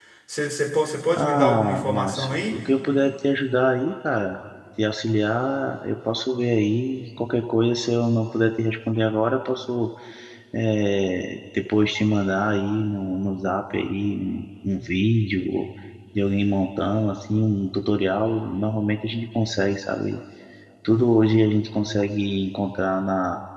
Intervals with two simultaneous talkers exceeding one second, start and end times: 1.2-2.6

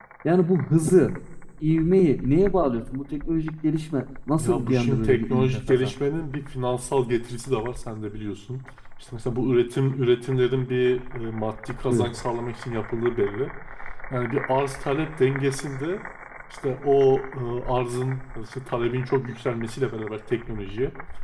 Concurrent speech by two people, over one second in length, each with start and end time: 4.4-5.9

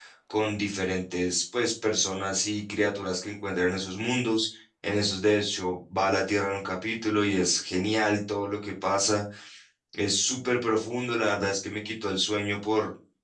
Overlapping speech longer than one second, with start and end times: none

